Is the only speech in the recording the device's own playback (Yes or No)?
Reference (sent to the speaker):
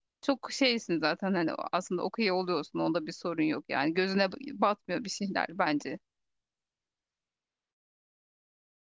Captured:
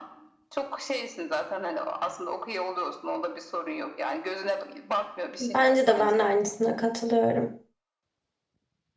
No